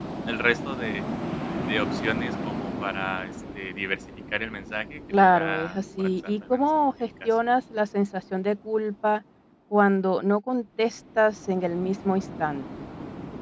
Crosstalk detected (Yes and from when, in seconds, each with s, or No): Yes, from 5.1 s